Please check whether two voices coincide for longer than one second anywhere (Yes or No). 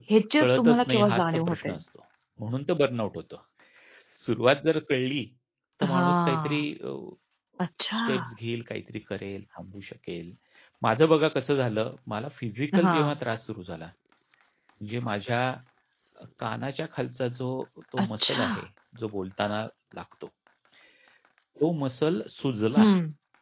Yes